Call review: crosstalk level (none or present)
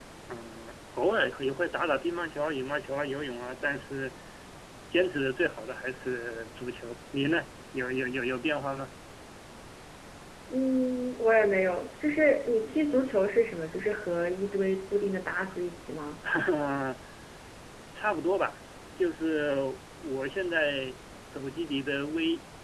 none